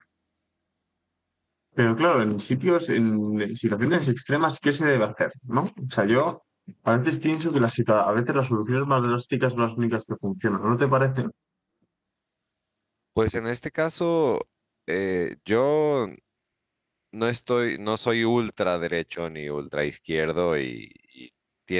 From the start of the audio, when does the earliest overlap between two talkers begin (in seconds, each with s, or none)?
none